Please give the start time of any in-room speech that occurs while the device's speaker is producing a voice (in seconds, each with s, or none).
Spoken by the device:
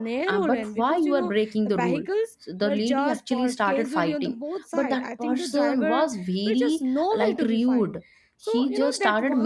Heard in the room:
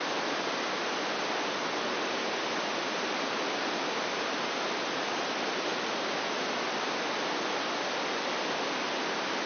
none